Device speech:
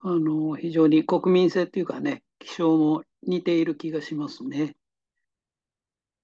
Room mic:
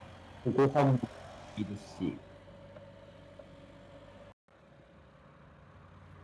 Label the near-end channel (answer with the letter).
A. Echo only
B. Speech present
B